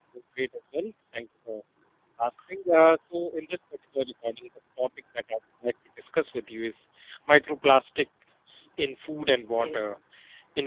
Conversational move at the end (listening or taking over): listening